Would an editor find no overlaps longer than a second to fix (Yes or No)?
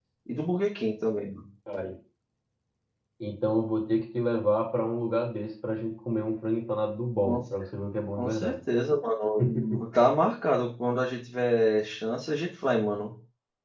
Yes